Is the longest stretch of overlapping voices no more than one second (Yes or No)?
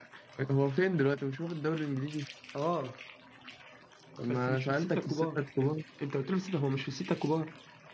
No